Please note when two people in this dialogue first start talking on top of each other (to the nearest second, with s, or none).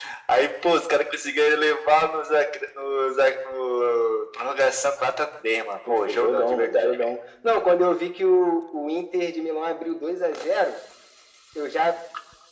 6 s